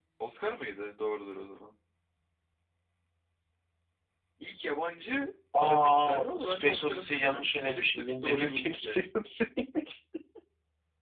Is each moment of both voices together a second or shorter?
No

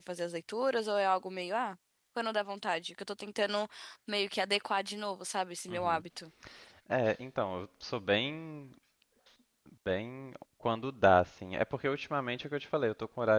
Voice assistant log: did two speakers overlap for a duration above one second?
No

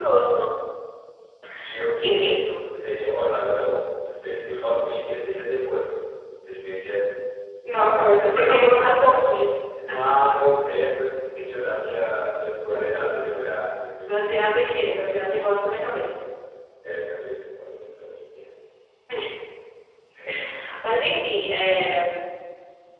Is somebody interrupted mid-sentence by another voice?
Yes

